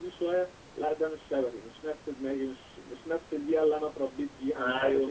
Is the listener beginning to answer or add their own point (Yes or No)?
Yes